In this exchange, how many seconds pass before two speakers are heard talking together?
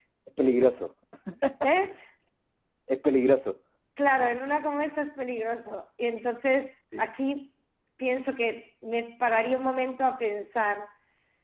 none

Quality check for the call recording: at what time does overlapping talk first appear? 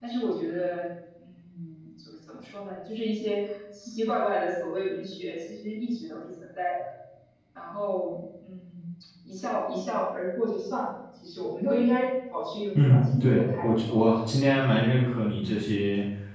13 s

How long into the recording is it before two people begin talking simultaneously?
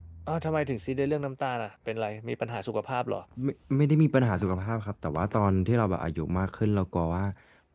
none

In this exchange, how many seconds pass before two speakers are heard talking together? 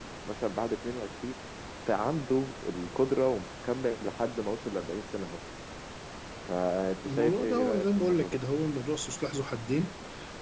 7 s

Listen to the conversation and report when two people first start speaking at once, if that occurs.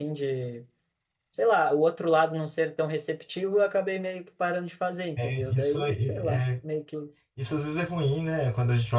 5 s

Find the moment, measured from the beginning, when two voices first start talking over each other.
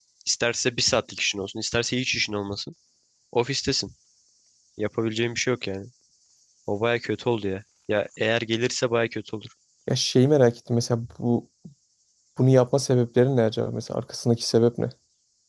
none

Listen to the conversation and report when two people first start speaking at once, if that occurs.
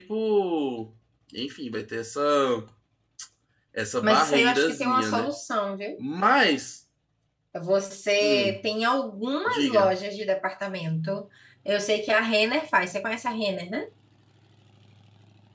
4 s

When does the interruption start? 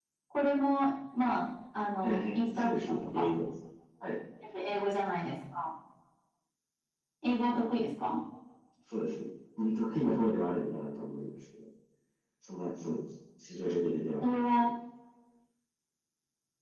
2 s

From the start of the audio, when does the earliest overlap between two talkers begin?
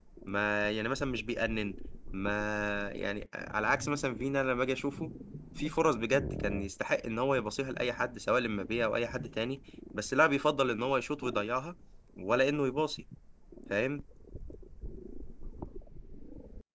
none

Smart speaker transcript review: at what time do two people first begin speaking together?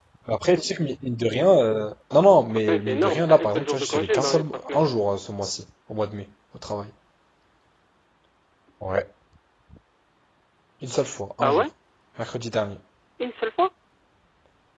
3 s

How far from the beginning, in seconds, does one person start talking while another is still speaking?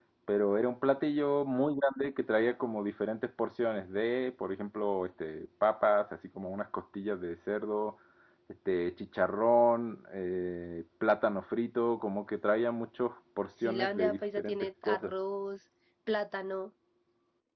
14 s

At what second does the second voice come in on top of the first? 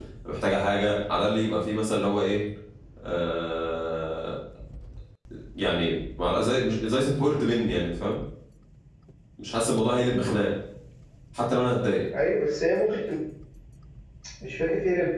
none

